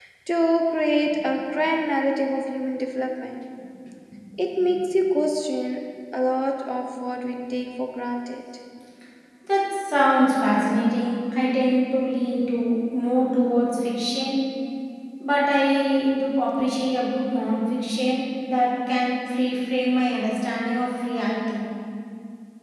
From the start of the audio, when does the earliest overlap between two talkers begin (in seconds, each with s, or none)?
none